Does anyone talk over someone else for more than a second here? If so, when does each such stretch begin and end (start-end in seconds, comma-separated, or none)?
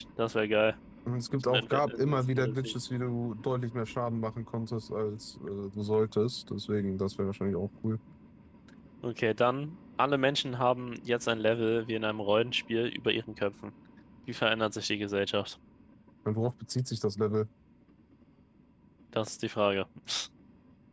1.5-2.7